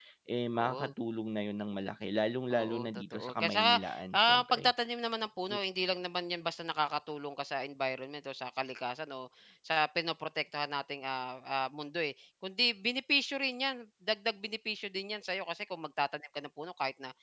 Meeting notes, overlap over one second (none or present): present